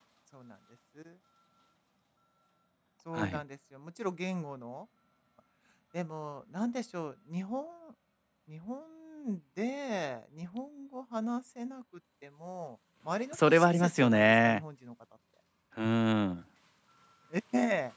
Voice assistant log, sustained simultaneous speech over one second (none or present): present